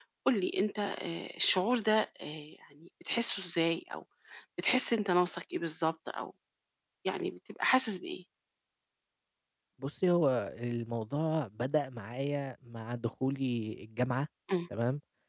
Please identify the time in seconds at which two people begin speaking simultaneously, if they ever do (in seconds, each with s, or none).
none